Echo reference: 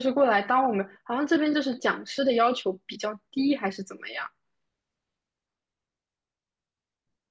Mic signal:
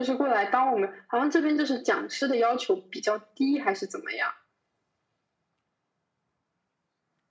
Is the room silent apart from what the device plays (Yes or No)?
Yes